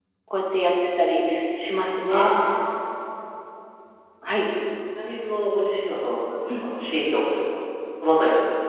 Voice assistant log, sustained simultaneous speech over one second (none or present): none